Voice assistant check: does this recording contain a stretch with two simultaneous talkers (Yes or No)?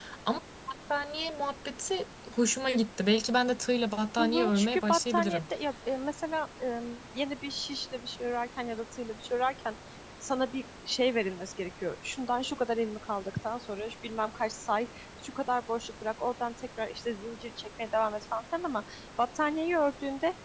Yes